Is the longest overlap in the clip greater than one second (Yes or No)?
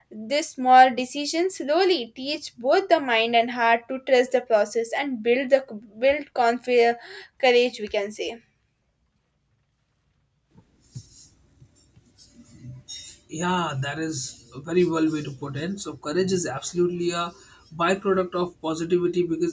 No